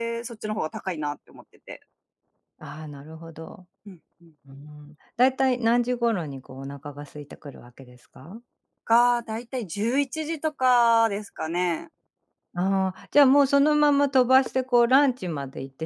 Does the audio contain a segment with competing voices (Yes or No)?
No